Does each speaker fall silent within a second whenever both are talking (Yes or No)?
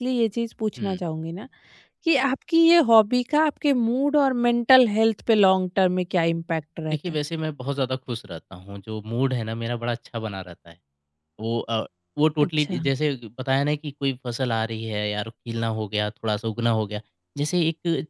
Yes